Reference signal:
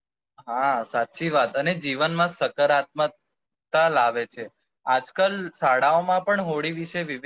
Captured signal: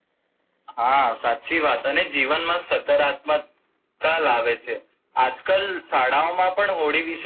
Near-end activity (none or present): none